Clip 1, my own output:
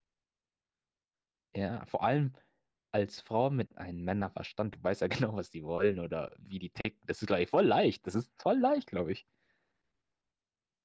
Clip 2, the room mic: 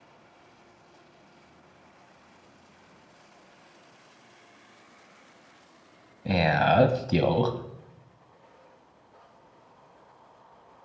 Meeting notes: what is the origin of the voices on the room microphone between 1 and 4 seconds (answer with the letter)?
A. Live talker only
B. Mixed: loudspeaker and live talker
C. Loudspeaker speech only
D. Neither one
D